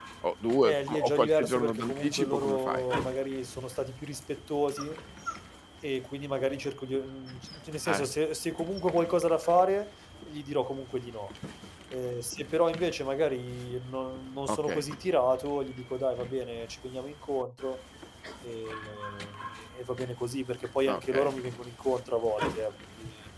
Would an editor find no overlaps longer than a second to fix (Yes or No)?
No